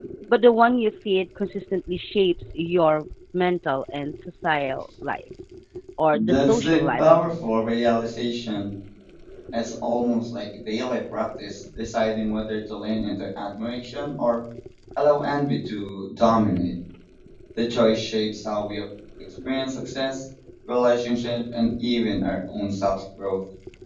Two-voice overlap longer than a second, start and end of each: 6.1-7.4

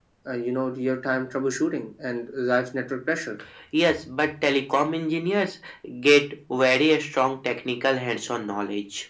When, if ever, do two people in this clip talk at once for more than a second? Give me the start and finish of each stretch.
none

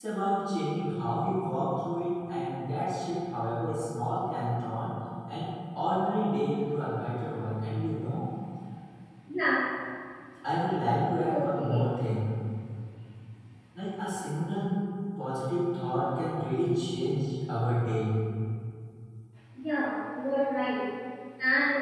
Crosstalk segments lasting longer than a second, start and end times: none

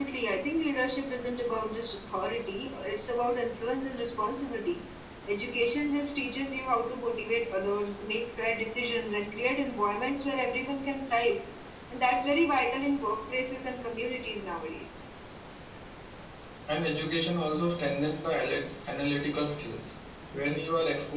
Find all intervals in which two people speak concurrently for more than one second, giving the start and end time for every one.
none

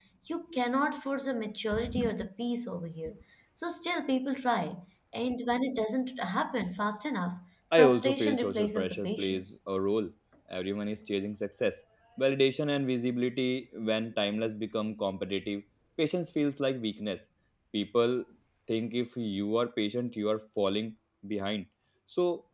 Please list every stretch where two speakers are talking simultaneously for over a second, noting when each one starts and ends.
7.8-9.5

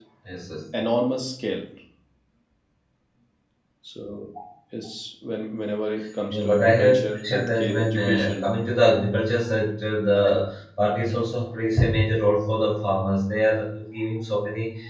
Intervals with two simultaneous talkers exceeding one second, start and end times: 6.3-8.4

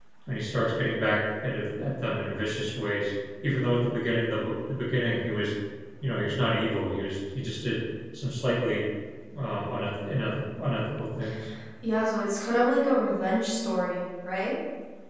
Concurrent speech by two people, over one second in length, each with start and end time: none

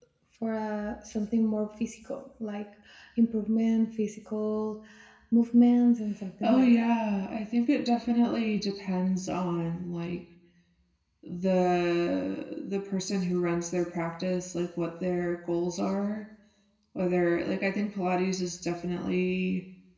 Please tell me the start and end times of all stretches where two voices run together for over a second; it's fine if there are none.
none

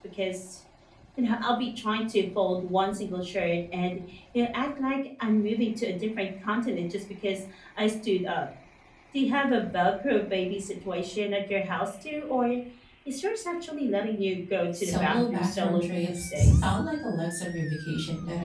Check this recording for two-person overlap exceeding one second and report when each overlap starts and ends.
14.8-16.8

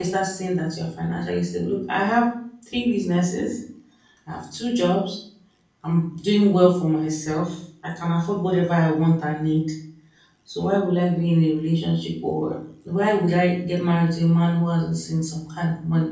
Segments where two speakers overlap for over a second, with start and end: none

